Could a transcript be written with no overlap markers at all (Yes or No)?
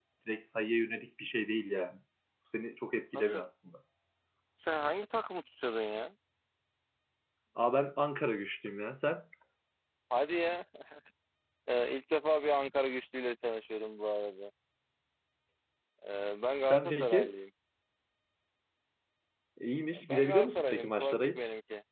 No